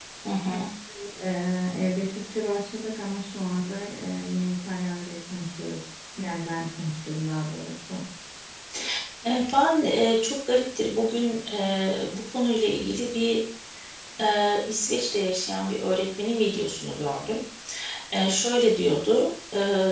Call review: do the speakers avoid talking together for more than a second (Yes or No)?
Yes